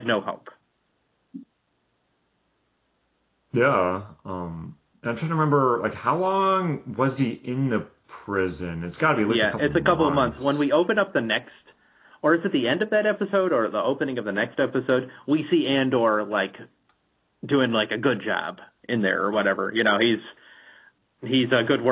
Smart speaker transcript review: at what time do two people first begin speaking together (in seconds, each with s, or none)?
9.3 s